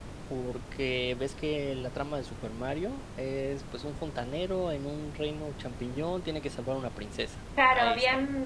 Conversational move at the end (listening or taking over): taking over